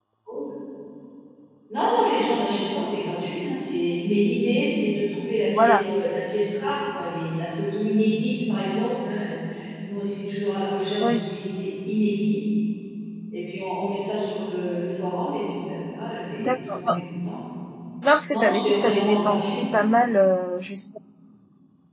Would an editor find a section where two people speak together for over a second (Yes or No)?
Yes